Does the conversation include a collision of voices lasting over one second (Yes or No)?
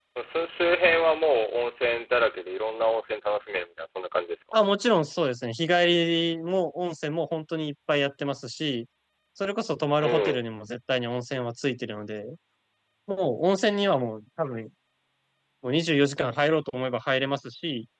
No